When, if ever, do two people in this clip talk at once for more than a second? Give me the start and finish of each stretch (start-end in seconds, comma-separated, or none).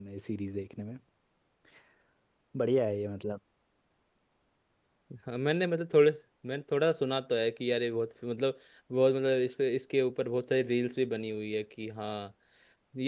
none